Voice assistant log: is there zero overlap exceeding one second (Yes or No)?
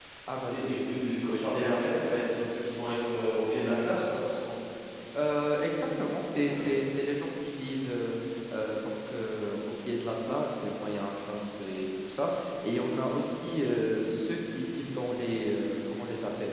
Yes